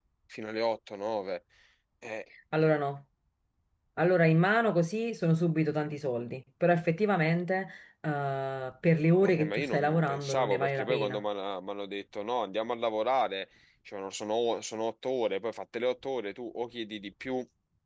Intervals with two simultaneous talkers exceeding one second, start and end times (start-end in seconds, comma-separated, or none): 9.2-11.2